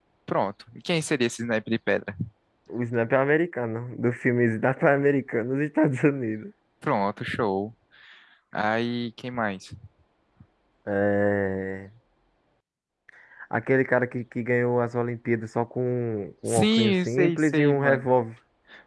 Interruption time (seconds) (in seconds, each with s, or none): 16.5 s